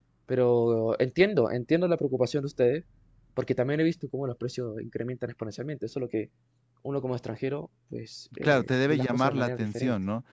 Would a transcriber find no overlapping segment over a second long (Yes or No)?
No